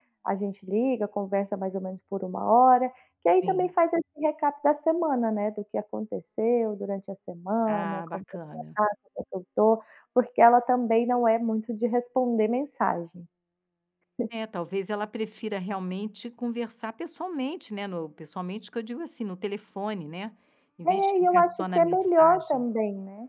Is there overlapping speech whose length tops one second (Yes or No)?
Yes